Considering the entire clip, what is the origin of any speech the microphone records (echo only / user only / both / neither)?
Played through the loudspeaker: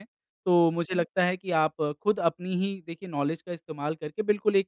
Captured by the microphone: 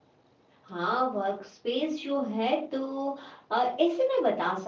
user only